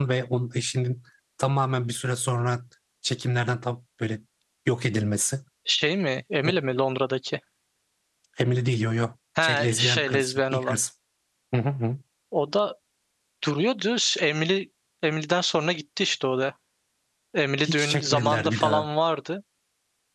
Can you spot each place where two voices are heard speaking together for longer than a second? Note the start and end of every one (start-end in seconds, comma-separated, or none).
9.4-10.8, 17.6-18.9